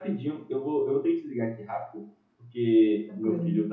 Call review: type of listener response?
listening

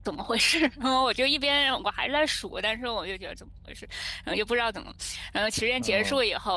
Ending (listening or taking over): listening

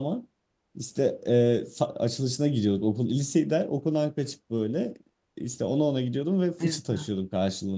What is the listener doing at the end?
listening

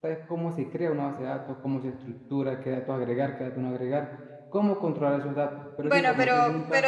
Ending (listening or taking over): taking over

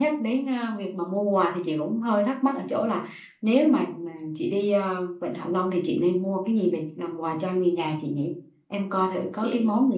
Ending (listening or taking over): listening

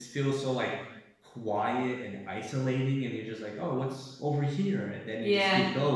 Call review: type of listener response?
listening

